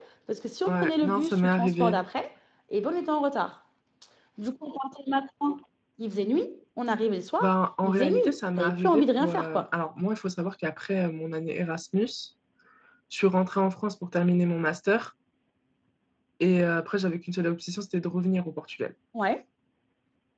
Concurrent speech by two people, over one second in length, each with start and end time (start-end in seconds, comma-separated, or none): 0.7-2.0, 7.8-9.7